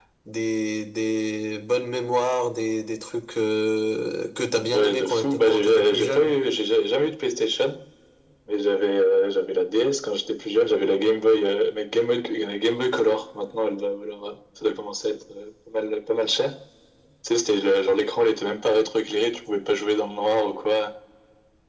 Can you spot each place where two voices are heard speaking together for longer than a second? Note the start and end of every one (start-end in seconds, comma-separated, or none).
4.6-6.4